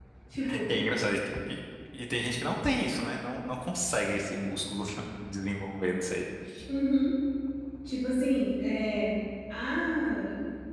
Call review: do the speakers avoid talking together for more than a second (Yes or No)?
Yes